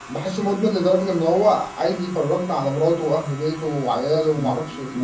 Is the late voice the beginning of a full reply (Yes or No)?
Yes